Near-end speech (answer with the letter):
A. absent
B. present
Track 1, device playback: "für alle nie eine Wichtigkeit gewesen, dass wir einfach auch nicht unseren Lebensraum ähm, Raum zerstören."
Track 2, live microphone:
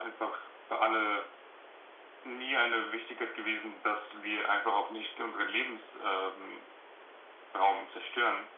A